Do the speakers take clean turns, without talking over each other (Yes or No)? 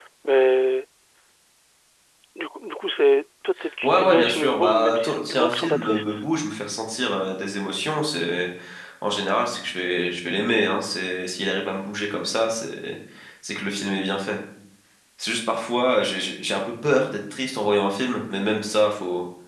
No